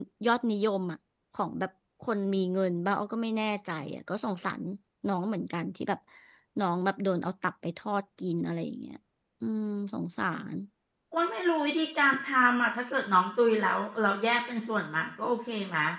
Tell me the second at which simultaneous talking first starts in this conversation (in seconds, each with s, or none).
none